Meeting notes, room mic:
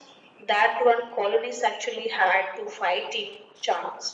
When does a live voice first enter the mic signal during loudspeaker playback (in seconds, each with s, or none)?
none